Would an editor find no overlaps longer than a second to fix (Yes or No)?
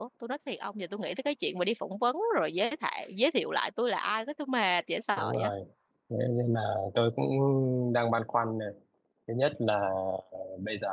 Yes